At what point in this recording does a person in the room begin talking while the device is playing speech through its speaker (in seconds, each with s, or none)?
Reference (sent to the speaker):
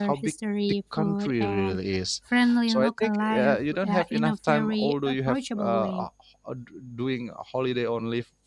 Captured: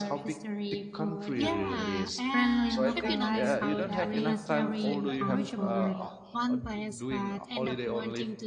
1.3 s